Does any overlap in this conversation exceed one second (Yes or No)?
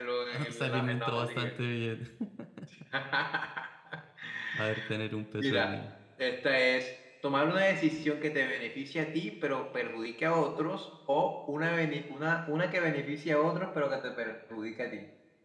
Yes